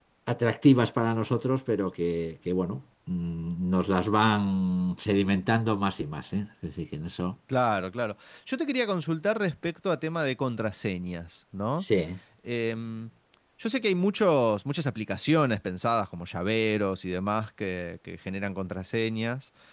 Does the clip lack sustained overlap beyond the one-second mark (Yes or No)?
Yes